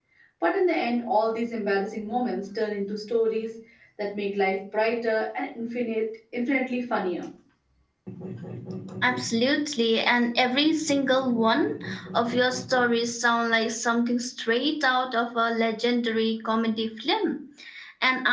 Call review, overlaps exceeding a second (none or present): none